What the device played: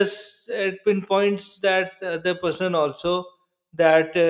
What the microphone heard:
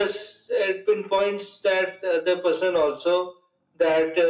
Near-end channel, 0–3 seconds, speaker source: echo only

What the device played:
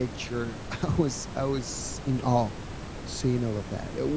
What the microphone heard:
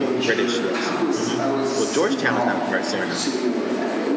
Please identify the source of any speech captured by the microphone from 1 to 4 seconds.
both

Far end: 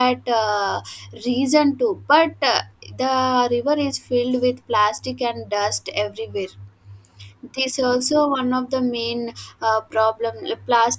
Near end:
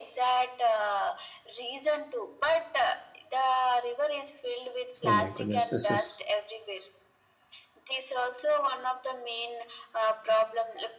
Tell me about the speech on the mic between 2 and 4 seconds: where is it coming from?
echo only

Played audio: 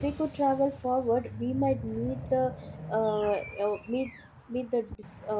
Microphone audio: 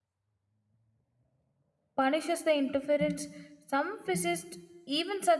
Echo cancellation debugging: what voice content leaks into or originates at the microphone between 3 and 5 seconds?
user only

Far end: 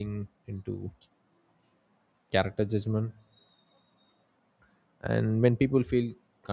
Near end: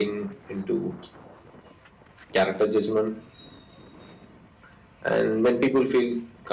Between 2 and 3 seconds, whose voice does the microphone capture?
echo only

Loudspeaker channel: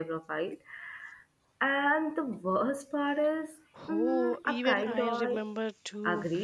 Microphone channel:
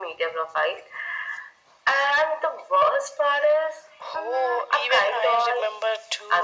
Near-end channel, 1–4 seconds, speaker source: echo only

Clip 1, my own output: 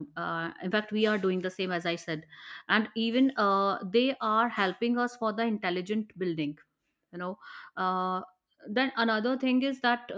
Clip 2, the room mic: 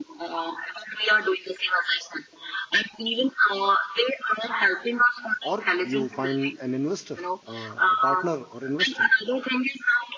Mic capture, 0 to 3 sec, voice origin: echo only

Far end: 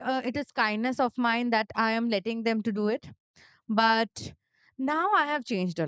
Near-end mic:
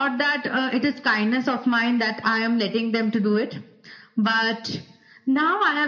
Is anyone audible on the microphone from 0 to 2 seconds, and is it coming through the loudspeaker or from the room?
echo only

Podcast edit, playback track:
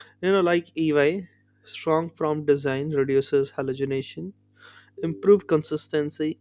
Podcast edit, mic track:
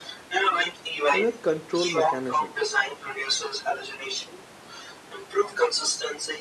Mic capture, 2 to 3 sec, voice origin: both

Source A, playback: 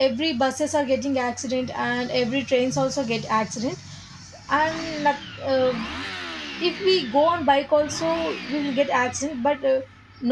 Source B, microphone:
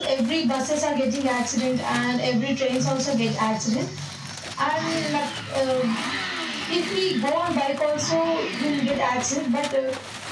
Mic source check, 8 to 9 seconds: echo only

